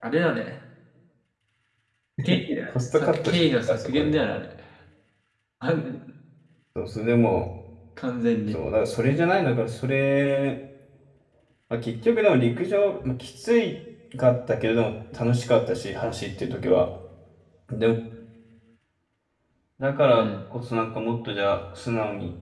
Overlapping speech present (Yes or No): Yes